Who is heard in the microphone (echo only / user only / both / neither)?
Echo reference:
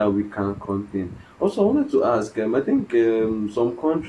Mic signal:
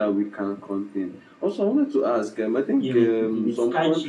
both